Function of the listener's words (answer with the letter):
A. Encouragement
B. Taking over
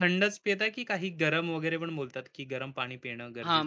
B